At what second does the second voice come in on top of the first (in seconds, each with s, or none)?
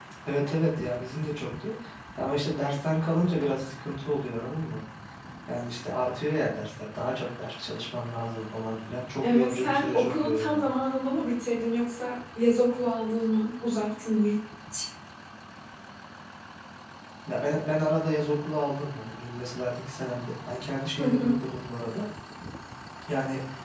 9.2 s